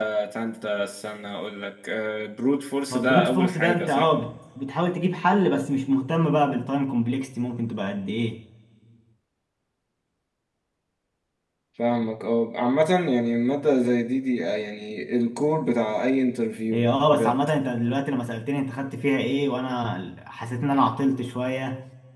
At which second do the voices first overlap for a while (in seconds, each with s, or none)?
2.9 s